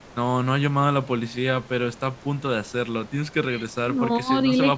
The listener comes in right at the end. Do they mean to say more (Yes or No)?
Yes